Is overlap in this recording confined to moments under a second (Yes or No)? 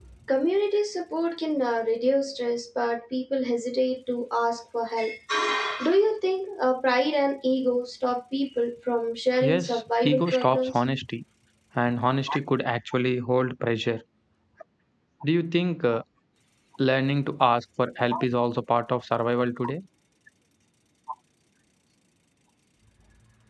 No